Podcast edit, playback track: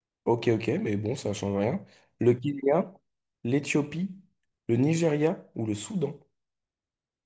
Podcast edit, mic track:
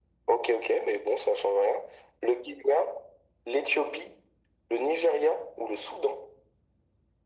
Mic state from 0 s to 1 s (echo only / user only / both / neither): echo only